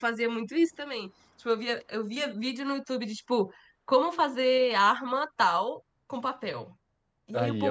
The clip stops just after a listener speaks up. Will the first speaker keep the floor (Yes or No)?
Yes